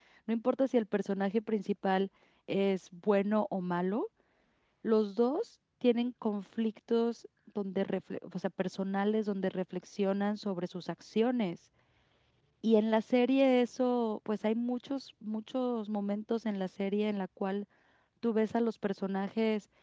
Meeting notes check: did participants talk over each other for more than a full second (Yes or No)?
No